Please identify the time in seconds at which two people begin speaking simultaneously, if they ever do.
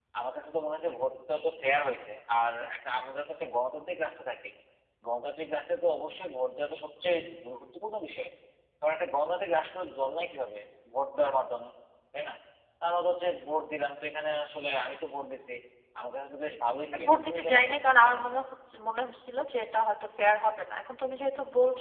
16.9 s

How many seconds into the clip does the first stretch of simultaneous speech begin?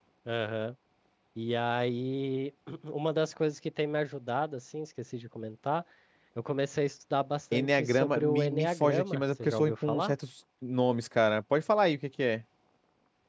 7.5 s

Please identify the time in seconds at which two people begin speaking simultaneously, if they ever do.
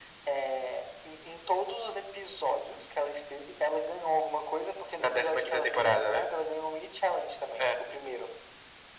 5.0 s

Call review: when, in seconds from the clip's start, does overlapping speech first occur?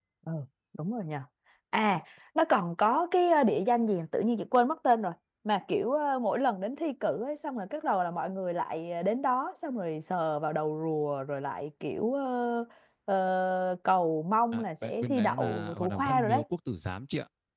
14.5 s

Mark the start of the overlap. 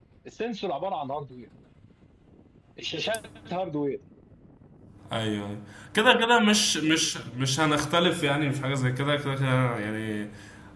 none

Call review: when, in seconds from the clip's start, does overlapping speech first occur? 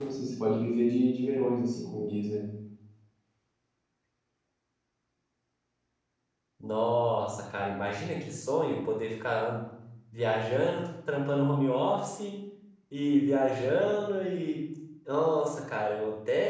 none

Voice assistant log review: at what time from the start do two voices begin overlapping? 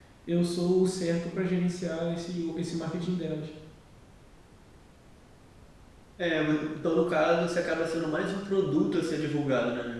none

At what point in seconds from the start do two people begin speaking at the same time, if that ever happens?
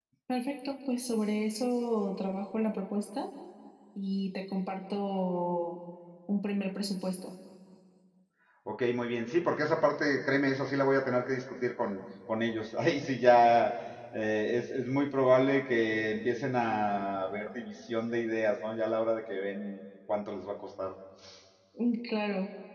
none

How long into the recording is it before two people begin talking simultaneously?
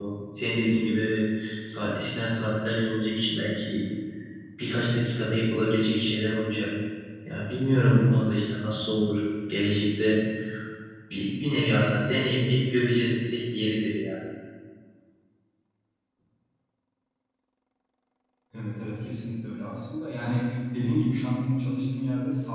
none

